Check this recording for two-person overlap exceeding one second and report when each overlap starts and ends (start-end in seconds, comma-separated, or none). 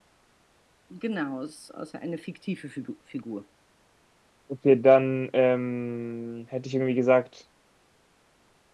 none